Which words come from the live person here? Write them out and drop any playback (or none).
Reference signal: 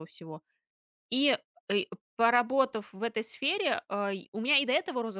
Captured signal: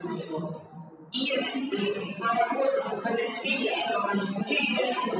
none